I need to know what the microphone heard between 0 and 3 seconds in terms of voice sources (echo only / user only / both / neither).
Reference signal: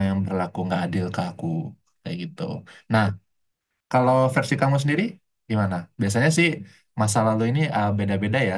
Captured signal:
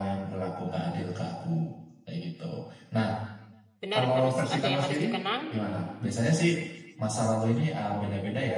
echo only